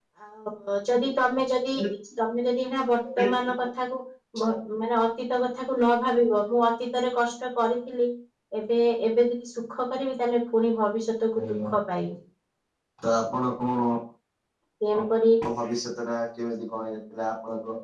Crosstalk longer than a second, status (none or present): none